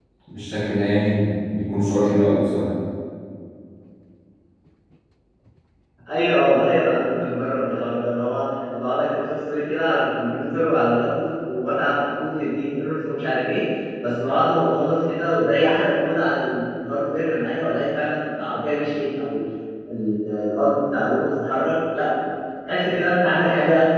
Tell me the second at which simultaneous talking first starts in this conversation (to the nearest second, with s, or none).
none